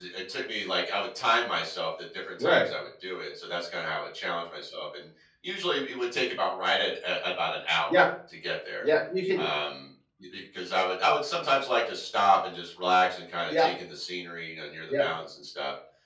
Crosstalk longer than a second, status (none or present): none